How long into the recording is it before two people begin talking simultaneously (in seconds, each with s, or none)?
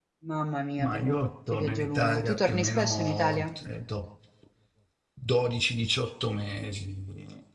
0.8 s